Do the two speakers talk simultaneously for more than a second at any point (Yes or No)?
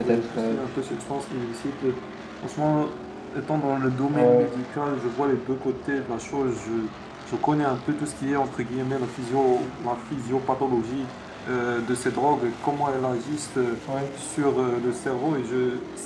No